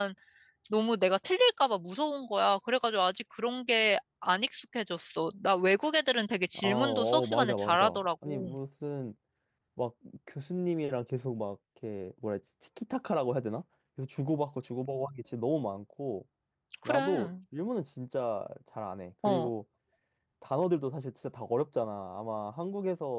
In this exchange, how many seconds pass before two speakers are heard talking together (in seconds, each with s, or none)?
6.5 s